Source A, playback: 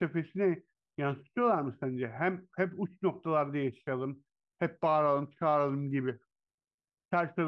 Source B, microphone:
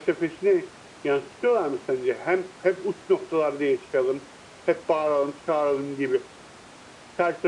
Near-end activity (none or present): none